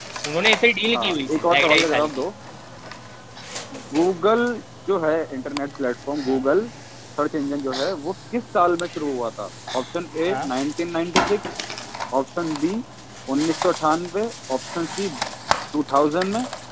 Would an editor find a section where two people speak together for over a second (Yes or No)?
Yes